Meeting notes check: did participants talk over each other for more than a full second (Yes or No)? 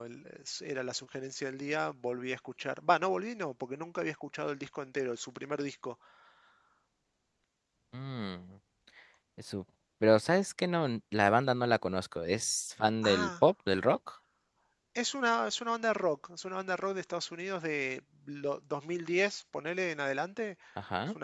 No